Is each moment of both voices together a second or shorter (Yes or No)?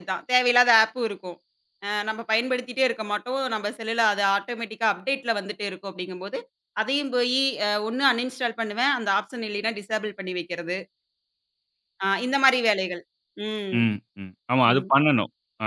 Yes